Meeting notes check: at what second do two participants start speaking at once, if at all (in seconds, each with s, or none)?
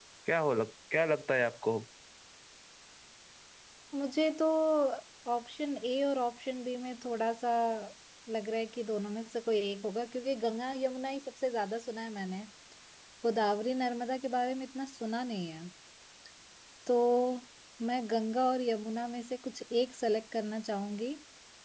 none